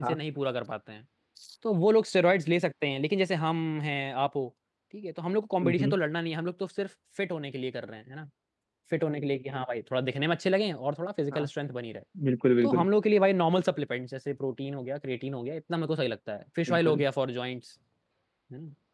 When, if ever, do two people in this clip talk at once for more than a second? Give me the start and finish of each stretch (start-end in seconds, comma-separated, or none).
none